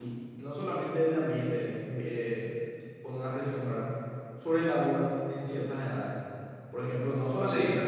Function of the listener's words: listening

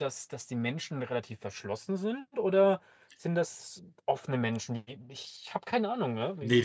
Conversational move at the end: taking over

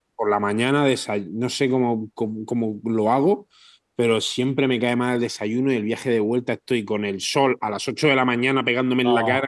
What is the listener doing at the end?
listening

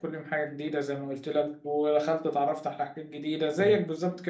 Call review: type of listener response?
listening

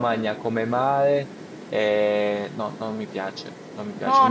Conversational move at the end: taking over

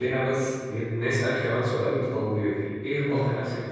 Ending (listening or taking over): listening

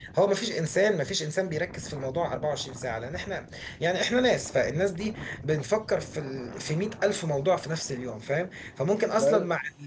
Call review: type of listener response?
listening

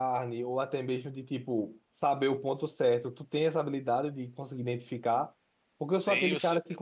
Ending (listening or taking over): listening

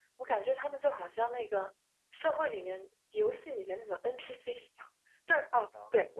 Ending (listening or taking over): listening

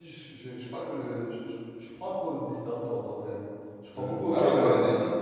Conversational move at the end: taking over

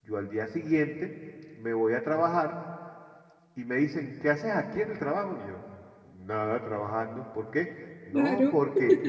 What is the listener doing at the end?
listening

